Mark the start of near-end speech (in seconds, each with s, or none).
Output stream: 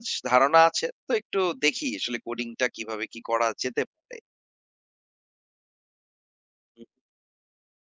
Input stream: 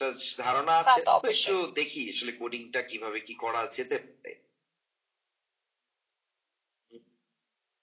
0.8 s